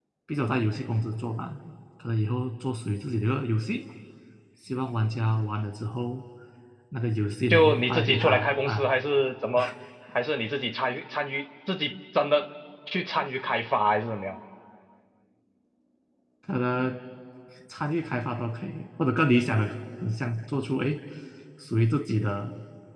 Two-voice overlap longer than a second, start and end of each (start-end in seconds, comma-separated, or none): 7.5-8.9